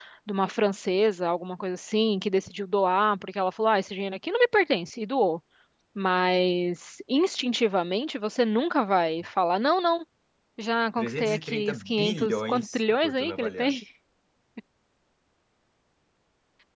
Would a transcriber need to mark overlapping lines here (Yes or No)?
Yes